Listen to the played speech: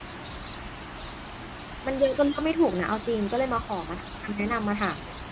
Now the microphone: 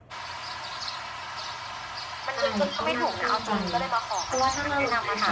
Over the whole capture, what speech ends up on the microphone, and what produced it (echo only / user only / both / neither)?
both